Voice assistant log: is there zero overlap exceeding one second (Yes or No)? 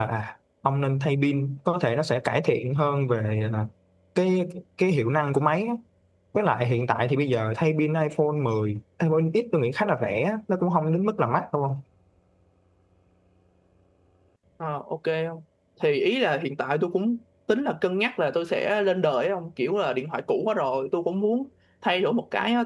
Yes